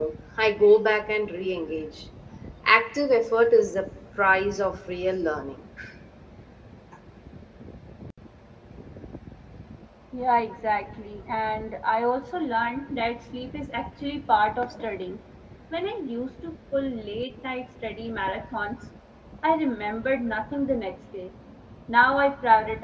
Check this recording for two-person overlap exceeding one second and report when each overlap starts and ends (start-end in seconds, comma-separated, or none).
none